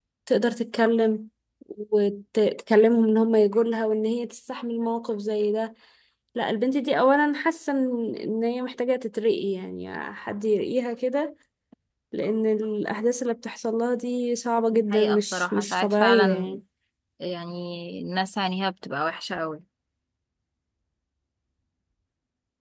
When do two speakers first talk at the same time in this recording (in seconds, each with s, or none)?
14.7 s